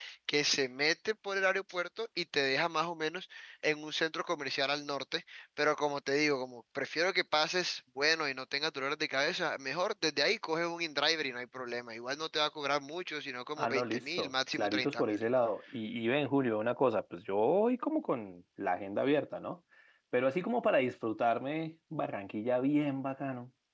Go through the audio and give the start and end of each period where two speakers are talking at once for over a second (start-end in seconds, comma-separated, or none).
13.6-15.2